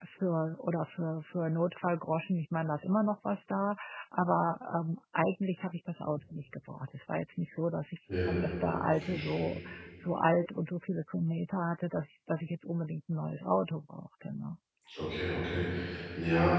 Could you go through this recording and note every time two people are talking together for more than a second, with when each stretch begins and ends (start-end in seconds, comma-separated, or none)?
none